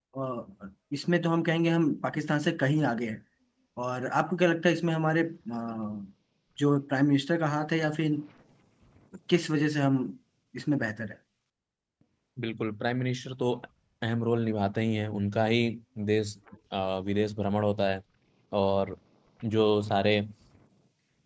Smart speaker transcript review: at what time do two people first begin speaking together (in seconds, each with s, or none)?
none